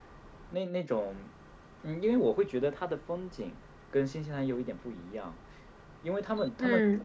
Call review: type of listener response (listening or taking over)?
listening